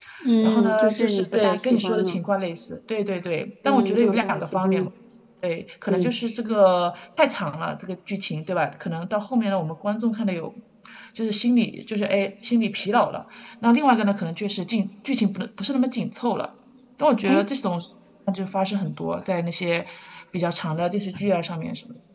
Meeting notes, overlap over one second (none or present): present